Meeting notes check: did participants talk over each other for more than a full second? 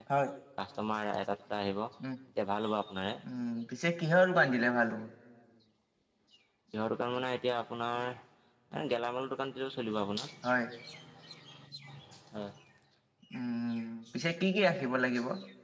No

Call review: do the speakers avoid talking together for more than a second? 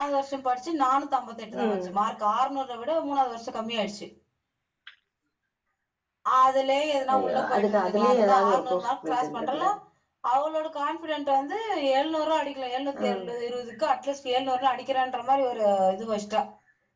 No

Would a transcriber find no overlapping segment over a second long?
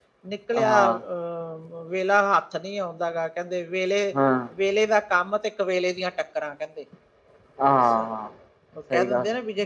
Yes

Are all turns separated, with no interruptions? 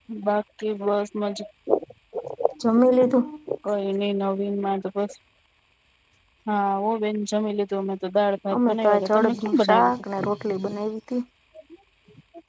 No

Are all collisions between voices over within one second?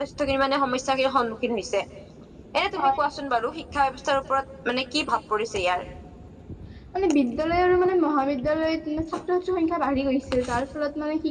Yes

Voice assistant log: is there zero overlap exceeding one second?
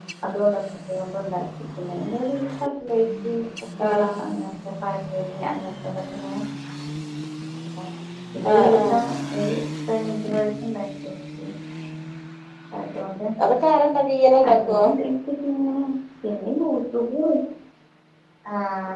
Yes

